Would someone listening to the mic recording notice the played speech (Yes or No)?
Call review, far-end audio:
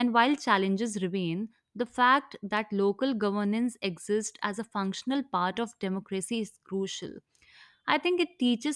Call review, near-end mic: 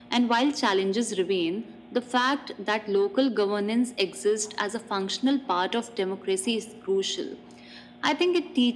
Yes